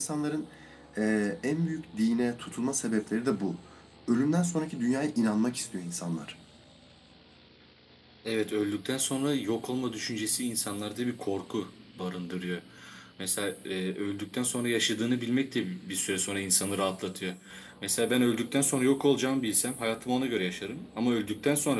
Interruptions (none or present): none